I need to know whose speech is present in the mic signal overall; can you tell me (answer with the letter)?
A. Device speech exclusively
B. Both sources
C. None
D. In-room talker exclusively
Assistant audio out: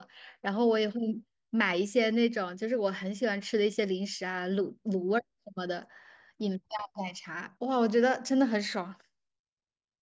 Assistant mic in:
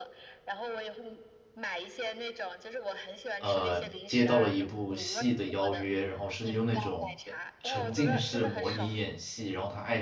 B